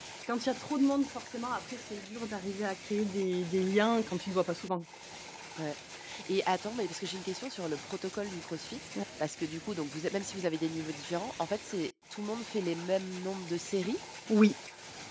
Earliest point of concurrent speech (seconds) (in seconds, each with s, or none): none